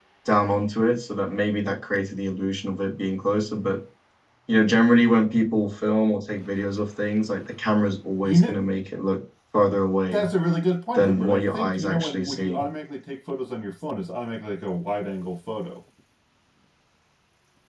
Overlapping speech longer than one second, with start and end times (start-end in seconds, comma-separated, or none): 10.9-12.6